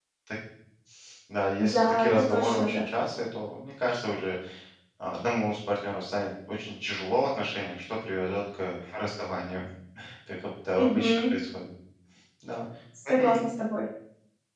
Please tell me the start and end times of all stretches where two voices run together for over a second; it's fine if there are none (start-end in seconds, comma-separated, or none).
1.6-2.8